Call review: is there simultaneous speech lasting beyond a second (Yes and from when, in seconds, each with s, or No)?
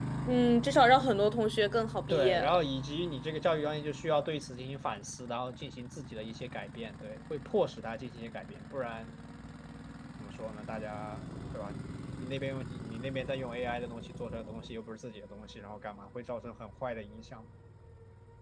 No